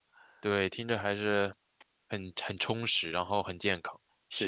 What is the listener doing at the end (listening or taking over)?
taking over